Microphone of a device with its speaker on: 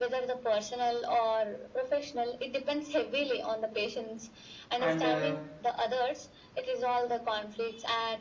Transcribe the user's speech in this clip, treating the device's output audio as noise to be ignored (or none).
and uh,